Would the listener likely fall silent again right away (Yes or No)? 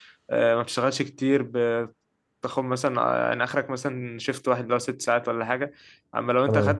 Yes